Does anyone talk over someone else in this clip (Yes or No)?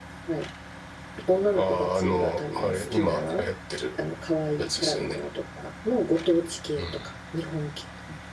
Yes